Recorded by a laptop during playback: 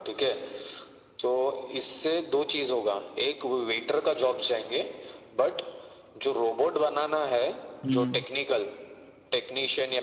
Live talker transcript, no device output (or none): हम्म